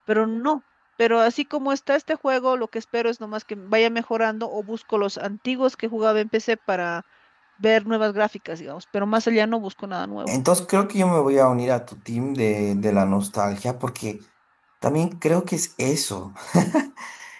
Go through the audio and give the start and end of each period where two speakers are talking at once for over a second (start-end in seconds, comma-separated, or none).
none